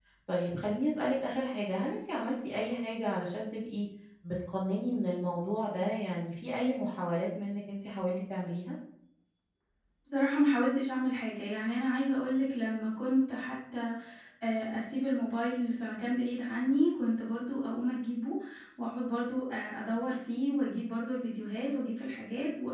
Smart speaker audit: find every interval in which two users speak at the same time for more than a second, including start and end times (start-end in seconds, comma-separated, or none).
none